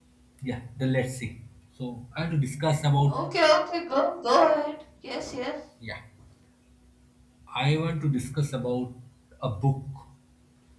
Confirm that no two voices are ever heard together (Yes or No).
Yes